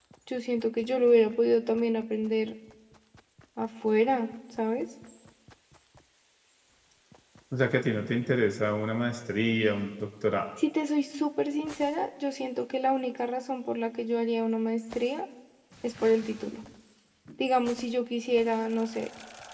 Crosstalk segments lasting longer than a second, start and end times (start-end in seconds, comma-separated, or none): none